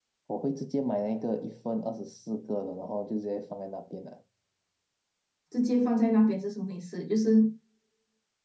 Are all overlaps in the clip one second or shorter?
Yes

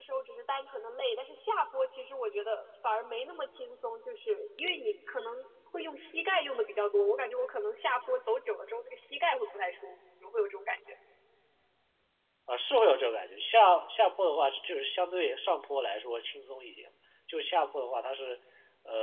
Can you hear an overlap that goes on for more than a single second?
No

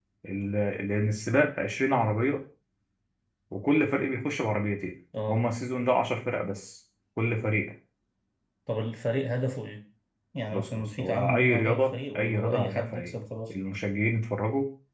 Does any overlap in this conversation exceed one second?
Yes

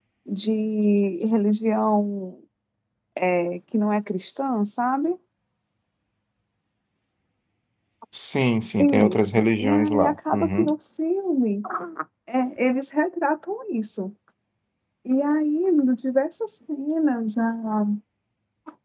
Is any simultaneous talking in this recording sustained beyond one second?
Yes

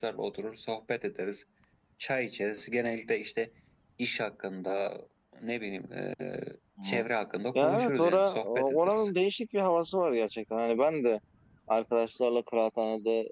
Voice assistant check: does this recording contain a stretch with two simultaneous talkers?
Yes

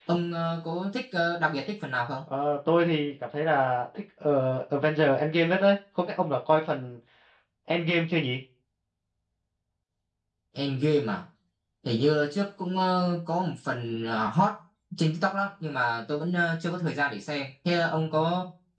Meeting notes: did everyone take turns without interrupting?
Yes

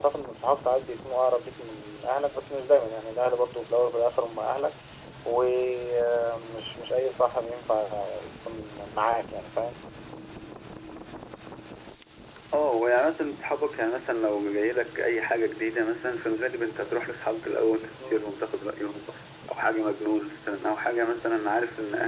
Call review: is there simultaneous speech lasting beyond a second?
No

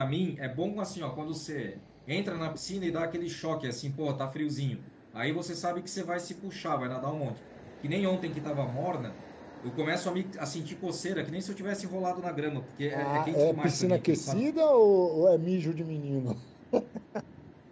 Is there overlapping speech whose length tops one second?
Yes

